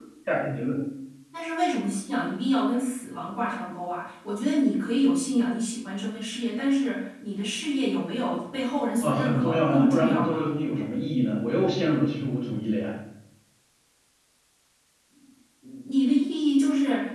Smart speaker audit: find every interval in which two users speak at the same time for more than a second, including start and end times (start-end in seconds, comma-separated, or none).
9.0-10.5